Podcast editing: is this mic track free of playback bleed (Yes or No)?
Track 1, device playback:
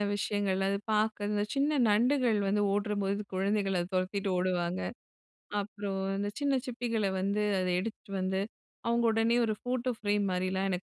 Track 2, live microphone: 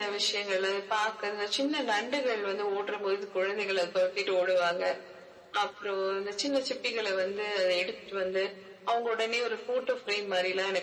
No